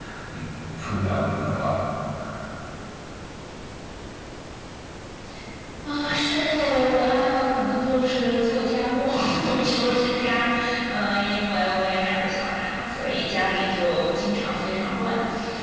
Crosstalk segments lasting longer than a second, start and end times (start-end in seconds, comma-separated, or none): none